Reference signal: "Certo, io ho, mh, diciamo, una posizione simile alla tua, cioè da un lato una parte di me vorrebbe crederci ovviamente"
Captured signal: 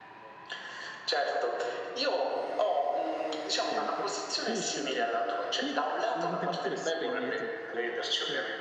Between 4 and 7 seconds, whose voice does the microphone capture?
both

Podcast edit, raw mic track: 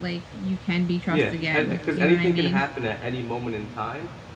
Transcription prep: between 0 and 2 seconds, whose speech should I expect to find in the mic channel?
both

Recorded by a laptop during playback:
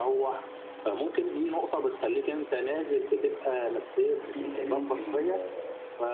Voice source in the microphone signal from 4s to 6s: both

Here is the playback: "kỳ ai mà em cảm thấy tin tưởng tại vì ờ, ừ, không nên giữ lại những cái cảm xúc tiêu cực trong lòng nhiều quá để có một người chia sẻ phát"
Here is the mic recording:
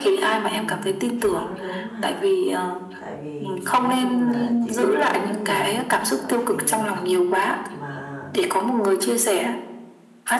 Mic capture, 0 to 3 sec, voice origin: both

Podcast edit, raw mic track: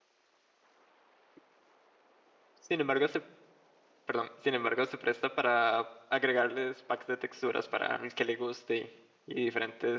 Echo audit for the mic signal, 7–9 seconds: user only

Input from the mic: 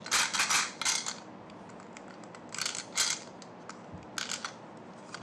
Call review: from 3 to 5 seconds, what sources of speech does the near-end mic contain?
neither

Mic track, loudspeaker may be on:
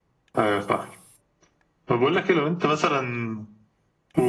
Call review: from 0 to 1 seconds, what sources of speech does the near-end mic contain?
echo only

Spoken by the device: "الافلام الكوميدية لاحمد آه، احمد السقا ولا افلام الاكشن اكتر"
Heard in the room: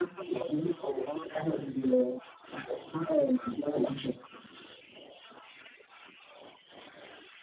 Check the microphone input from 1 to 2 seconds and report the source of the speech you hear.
echo only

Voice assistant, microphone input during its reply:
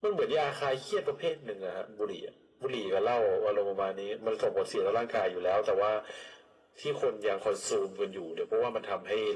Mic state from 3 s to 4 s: echo only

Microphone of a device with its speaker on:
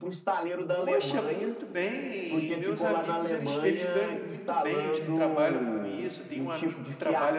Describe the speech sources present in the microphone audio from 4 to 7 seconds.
both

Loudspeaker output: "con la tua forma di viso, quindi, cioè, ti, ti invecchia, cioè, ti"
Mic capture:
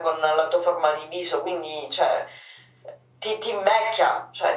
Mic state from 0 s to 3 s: echo only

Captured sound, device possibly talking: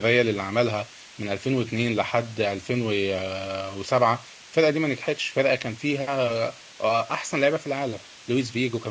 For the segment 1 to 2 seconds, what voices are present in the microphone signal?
user only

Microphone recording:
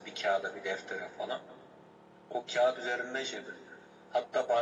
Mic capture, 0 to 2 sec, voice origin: echo only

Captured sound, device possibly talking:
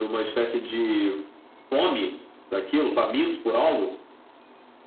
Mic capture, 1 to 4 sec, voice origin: echo only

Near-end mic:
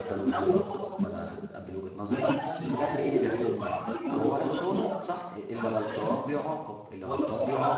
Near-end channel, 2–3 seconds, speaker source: both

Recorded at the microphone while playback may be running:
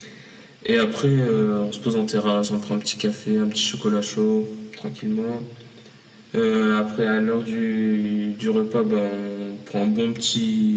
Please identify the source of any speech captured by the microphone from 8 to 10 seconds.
echo only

